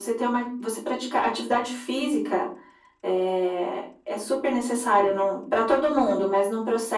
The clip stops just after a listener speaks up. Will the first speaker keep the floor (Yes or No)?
Yes